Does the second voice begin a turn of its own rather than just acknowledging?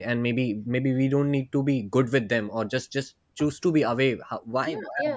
Yes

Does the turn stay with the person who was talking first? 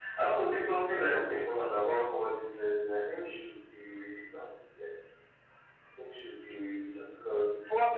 Yes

